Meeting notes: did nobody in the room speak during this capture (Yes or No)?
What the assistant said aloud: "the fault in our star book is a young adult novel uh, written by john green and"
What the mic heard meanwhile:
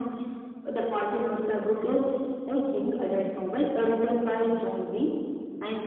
Yes